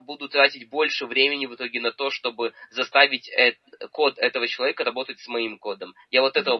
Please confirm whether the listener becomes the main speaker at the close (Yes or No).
Yes